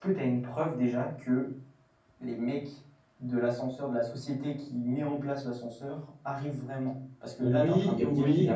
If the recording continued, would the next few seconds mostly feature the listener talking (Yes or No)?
Yes